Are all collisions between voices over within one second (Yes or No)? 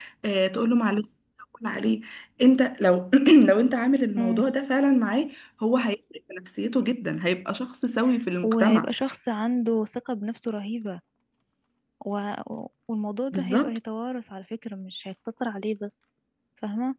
Yes